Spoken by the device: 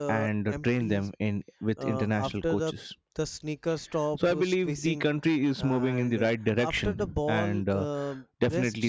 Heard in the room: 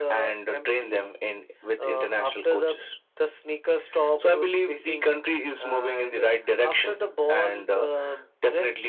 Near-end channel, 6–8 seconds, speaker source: echo only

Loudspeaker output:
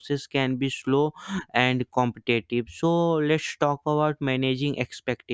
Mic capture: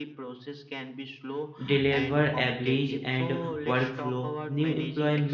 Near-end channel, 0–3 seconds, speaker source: both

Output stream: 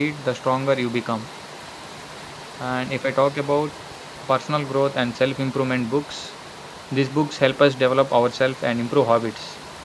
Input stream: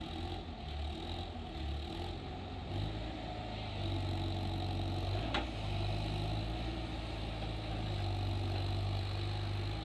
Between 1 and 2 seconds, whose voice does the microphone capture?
neither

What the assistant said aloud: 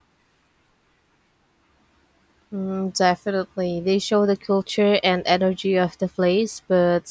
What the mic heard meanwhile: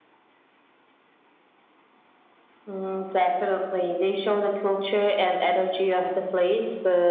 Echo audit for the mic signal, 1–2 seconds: neither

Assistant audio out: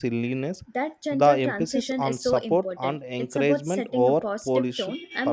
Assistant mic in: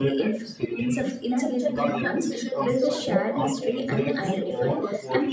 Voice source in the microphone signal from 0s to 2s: both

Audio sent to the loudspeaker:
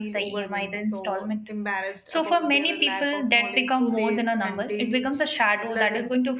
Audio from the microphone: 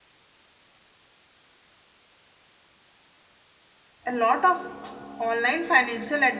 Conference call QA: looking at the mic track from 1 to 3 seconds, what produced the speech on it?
neither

